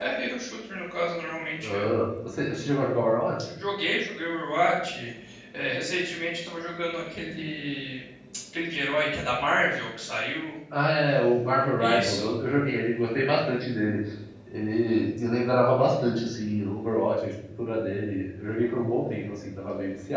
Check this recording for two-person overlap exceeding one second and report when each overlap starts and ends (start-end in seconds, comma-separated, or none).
none